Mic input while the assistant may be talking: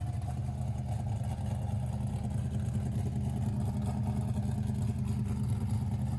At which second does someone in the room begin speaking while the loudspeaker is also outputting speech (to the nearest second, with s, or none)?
none